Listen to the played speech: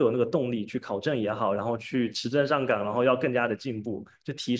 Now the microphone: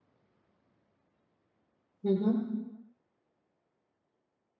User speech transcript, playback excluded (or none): 嗯哼，